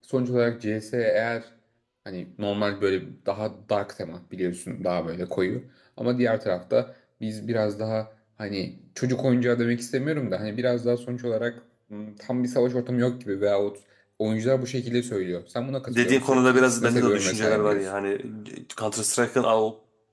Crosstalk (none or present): present